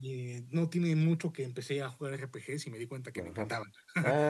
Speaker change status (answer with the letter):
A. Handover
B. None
A